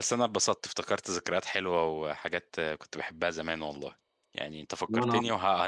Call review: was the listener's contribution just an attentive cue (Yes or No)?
Yes